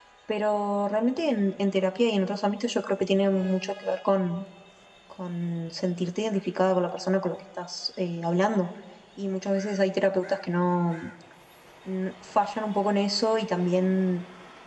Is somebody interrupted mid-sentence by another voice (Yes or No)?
No